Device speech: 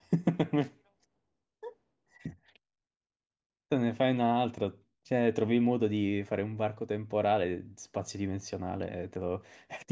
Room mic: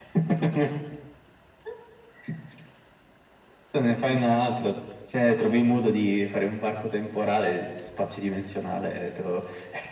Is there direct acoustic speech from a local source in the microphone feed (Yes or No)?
No